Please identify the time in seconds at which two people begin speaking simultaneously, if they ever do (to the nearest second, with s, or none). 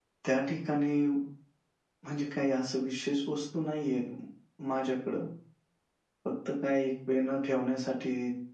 none